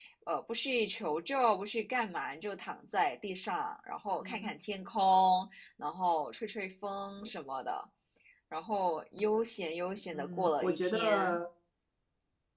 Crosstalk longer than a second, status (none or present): present